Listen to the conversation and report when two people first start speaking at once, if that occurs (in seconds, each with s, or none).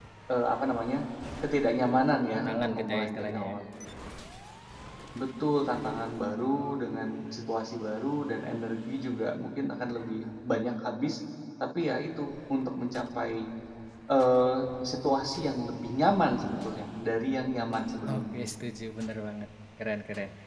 2.3 s